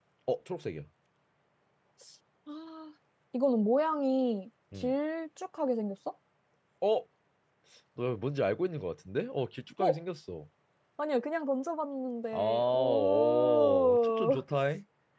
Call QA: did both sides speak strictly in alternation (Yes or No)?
No